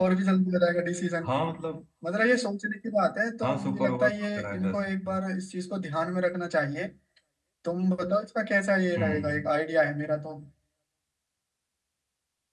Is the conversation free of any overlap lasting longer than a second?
No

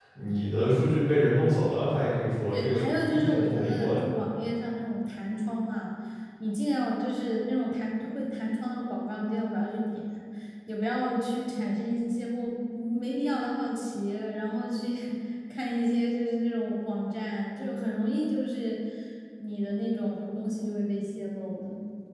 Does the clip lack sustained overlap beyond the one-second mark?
No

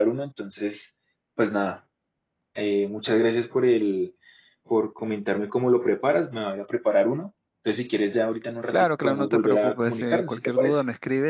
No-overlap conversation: No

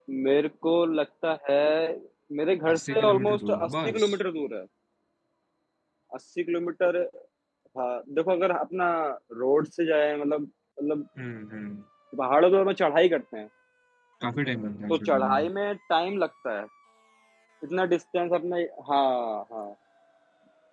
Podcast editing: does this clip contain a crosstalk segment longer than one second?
Yes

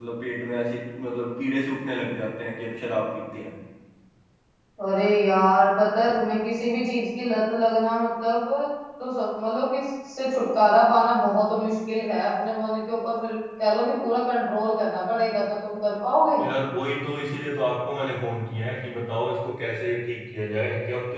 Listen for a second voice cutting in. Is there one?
No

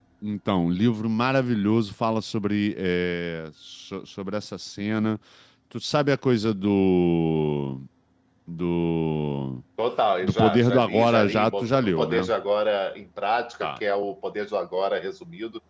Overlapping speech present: Yes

